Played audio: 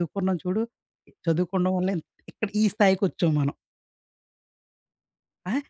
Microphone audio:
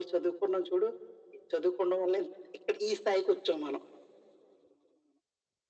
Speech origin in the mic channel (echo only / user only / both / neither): echo only